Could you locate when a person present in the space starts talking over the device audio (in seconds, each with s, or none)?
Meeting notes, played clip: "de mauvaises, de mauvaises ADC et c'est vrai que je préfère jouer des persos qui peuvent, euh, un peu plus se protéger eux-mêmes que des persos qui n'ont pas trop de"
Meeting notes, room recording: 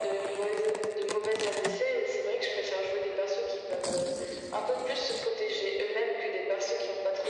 none